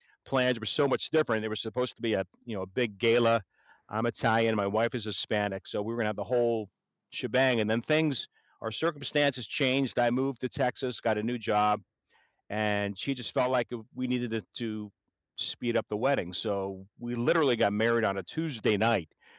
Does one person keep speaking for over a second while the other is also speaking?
No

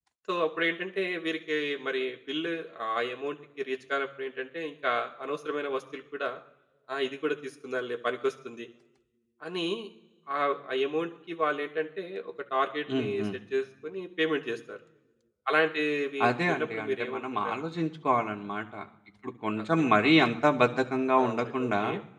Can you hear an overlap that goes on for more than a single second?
Yes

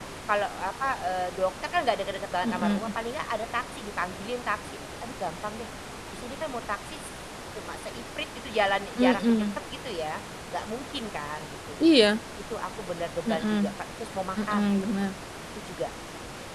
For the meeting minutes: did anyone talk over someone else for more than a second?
No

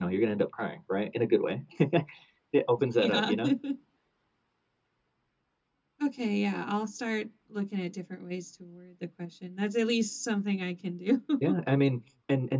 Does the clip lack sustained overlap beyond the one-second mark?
Yes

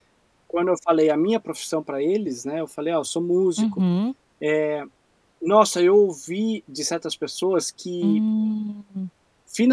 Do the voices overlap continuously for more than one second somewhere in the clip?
No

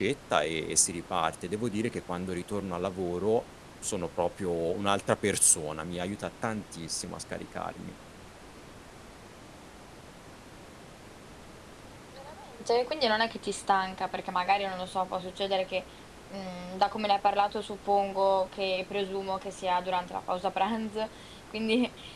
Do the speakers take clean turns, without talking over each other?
Yes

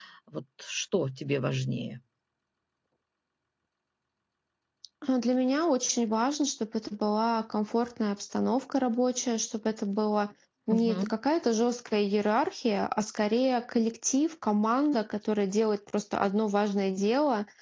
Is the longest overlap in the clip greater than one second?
No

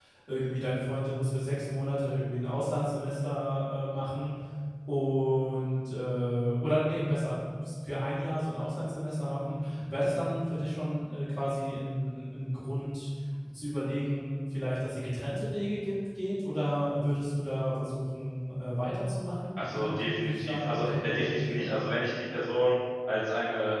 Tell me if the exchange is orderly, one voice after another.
No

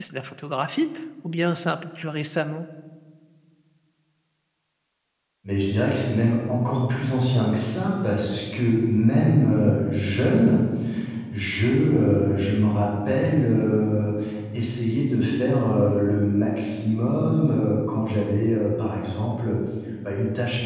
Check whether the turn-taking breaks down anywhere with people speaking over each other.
No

